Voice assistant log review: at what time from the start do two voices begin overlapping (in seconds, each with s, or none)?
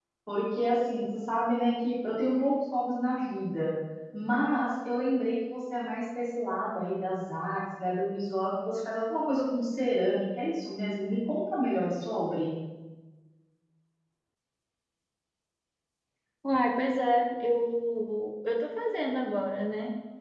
none